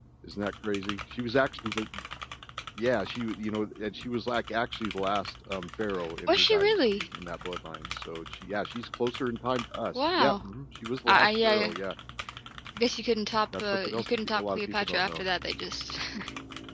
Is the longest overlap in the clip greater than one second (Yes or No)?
Yes